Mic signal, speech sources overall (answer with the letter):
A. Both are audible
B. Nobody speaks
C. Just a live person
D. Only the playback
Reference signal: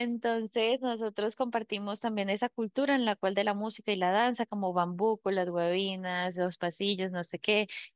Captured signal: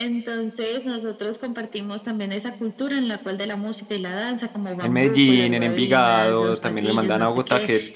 A